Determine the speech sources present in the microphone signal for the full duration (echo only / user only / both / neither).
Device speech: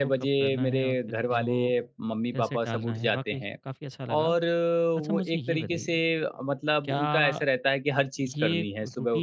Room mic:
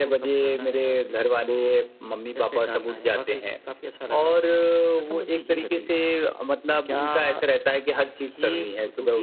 echo only